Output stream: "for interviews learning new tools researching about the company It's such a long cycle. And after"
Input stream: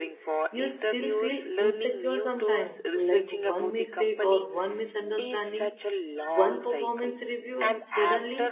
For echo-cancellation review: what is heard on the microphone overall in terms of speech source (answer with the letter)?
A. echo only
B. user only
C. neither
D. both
D